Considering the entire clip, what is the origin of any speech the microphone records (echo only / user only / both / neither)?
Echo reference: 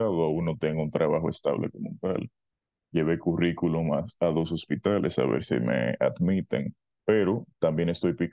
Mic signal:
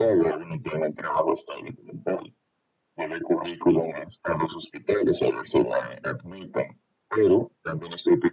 echo only